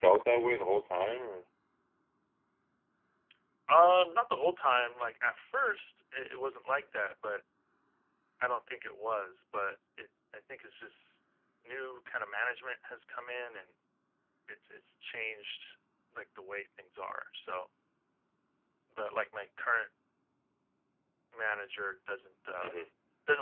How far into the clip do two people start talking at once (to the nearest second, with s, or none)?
none